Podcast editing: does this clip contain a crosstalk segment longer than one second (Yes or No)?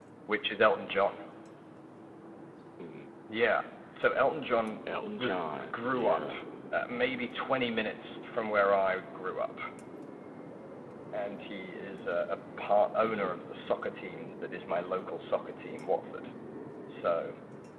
Yes